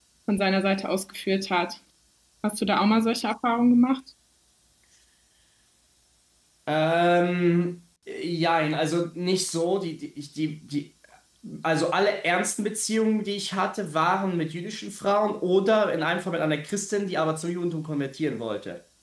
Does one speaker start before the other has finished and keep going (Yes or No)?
No